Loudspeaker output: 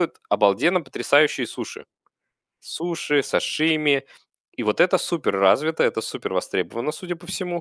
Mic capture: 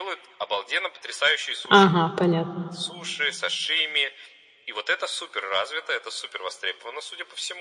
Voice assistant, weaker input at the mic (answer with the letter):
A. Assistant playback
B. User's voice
A